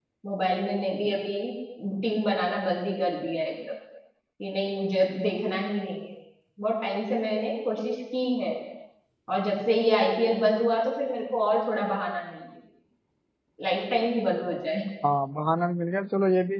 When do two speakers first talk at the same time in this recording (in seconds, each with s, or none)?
none